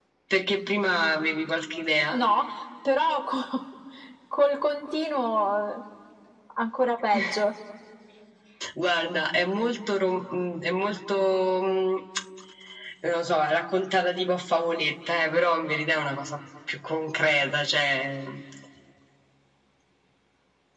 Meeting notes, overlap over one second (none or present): none